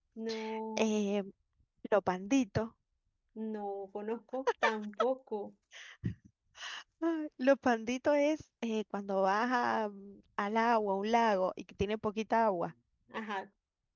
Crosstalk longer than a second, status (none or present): none